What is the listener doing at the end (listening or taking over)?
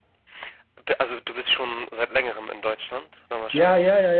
taking over